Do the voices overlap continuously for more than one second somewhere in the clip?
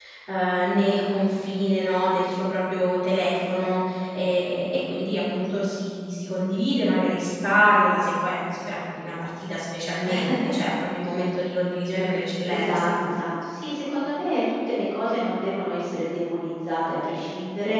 No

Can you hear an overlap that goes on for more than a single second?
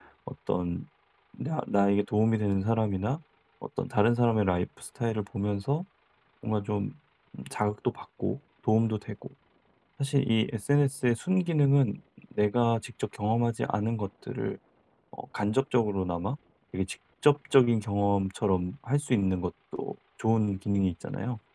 No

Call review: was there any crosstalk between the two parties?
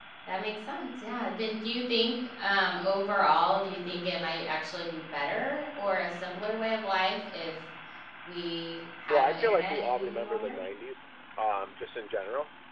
Yes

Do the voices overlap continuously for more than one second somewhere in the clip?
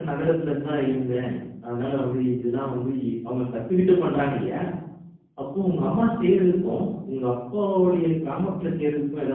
No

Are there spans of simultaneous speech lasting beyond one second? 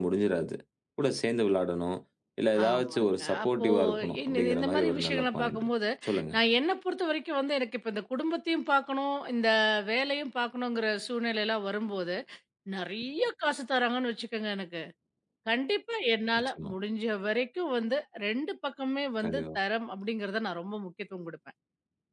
Yes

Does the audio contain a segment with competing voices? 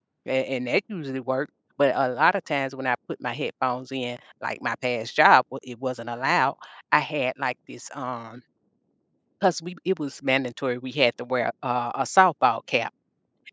No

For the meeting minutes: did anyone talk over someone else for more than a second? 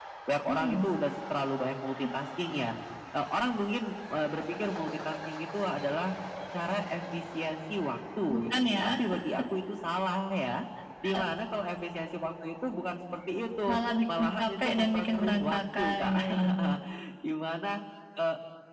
Yes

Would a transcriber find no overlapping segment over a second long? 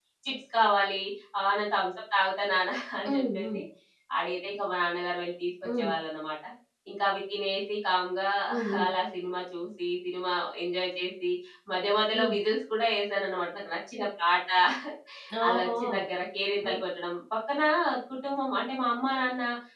Yes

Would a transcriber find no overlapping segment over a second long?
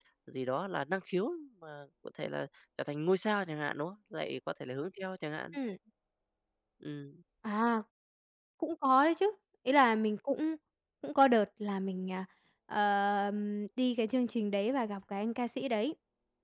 Yes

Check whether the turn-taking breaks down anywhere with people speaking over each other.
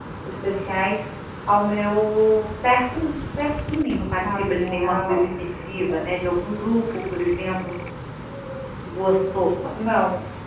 Yes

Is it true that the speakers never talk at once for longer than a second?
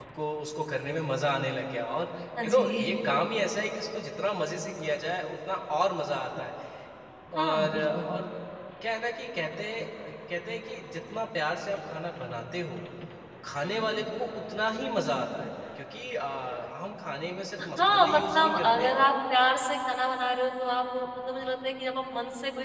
No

